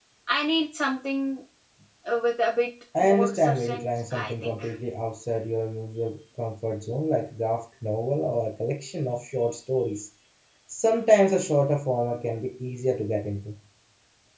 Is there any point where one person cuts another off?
Yes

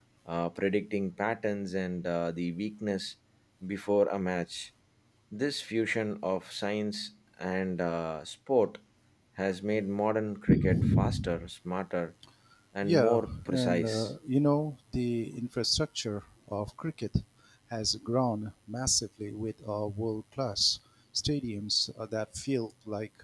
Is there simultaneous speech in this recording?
Yes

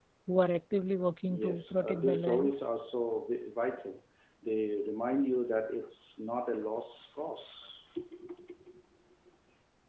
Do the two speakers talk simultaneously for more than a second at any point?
Yes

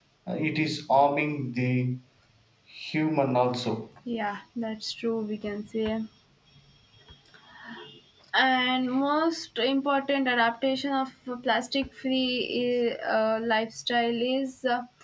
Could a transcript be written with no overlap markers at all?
Yes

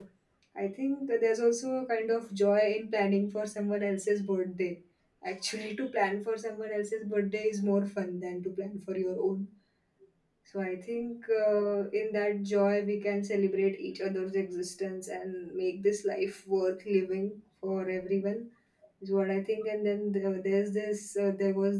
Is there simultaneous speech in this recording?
No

